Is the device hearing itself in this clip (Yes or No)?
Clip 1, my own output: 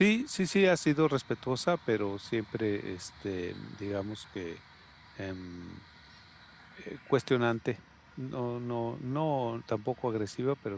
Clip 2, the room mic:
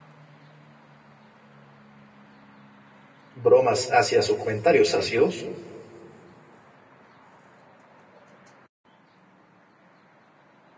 No